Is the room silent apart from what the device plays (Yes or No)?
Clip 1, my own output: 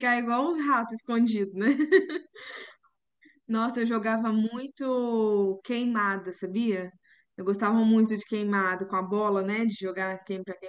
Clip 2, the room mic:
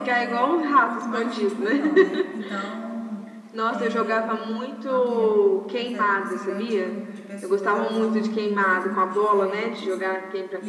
No